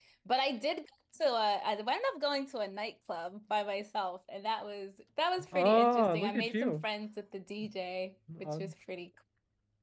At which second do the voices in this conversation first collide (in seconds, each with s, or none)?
5.5 s